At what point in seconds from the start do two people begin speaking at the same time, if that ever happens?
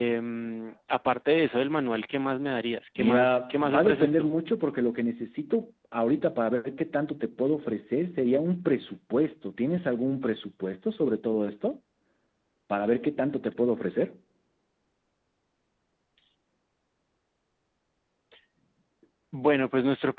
3.0 s

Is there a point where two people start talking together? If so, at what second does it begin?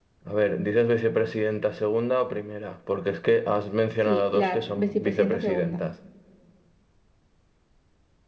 4.1 s

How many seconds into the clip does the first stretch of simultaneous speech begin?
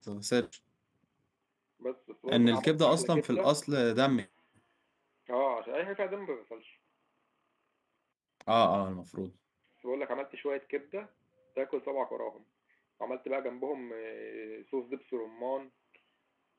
2.3 s

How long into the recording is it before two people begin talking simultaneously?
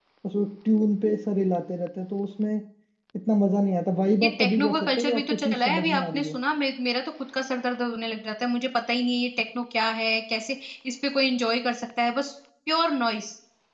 4.2 s

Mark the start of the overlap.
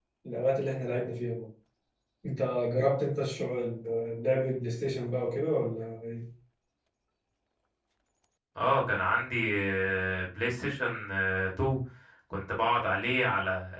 none

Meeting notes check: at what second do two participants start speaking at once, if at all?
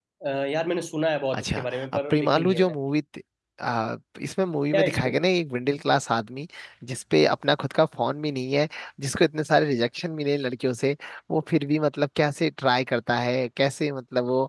1.3 s

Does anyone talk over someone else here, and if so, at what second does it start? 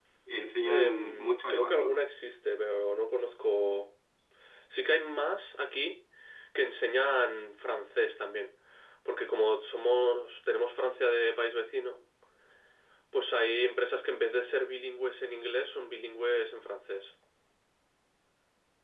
0.7 s

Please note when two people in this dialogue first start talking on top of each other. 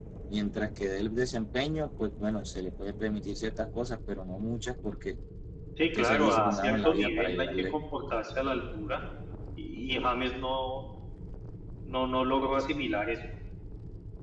6.0 s

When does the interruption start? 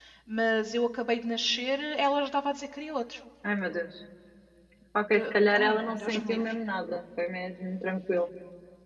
5.1 s

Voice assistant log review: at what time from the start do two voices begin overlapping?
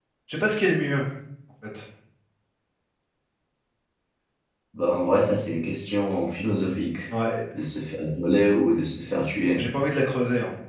none

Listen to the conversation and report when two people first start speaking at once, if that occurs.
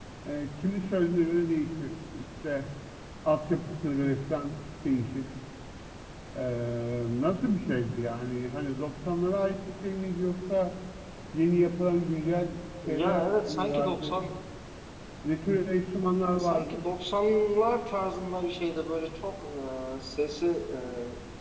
12.9 s

